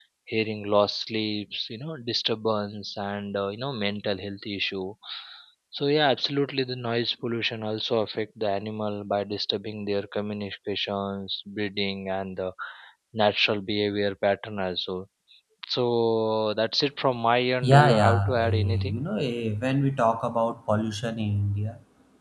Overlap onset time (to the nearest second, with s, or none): 18 s